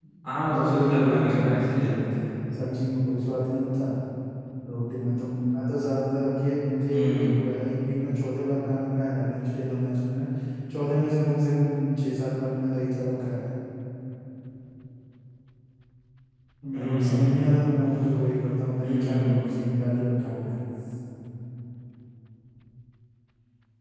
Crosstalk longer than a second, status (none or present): present